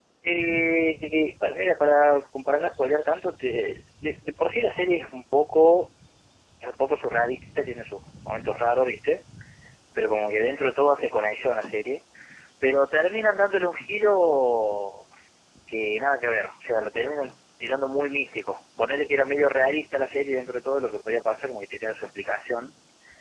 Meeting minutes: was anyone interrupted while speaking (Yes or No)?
No